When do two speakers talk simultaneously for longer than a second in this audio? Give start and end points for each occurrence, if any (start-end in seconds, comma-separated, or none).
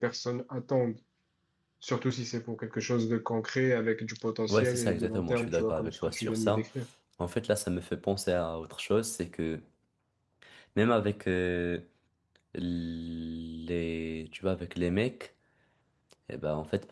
4.5-6.7